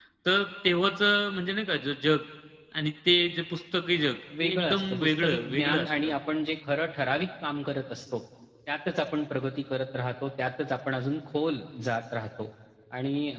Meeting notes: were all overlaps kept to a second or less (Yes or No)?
No